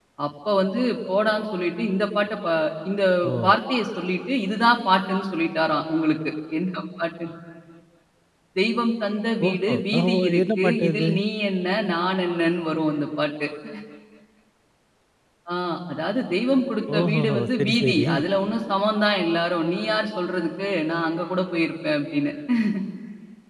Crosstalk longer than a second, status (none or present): present